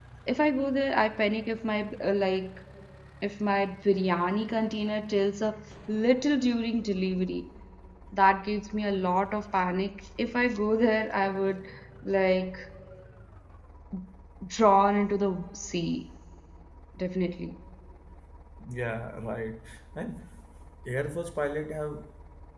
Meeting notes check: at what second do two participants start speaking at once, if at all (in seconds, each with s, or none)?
none